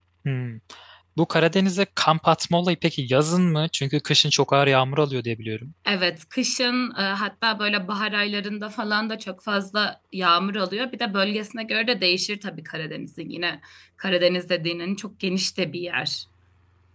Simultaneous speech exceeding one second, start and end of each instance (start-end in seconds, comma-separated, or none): none